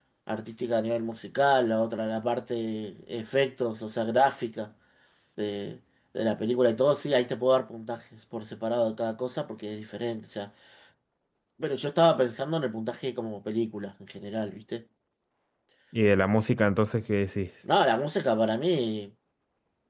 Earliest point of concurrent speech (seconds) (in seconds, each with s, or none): none